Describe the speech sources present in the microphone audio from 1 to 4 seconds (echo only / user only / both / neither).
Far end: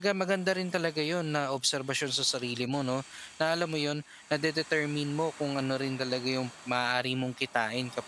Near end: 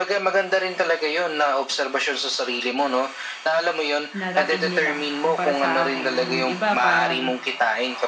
echo only